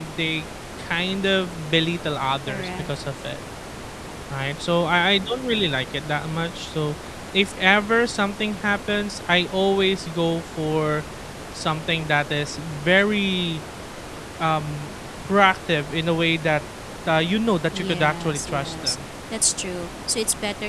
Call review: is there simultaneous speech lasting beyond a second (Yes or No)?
Yes